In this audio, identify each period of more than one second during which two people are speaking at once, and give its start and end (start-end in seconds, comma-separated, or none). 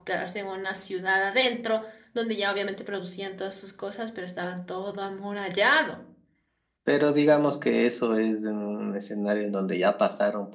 none